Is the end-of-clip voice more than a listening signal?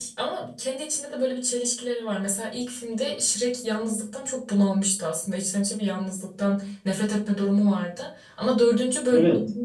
No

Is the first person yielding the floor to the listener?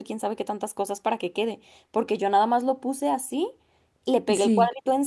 No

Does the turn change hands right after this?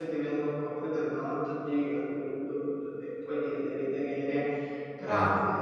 No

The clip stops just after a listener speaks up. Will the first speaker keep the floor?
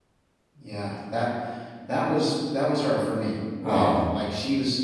Yes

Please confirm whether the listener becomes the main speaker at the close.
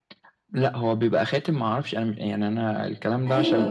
Yes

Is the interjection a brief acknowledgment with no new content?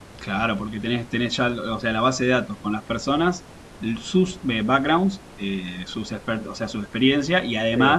Yes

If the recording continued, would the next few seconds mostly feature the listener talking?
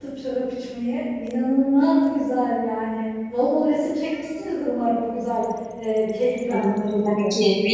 Yes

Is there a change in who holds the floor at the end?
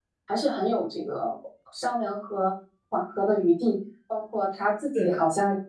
No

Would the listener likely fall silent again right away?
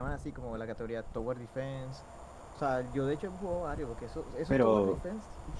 Yes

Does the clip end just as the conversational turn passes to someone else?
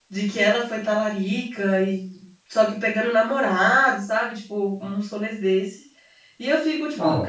No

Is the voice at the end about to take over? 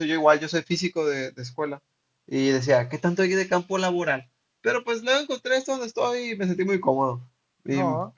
No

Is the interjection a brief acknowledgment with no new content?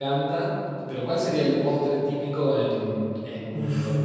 No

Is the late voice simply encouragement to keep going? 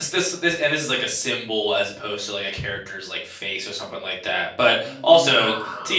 Yes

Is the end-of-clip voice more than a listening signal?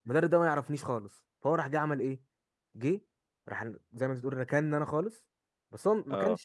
No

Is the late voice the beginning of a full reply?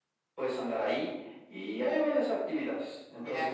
No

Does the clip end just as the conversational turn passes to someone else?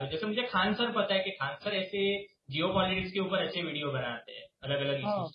Yes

